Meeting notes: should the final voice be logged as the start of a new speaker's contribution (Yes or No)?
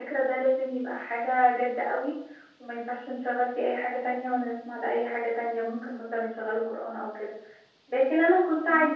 No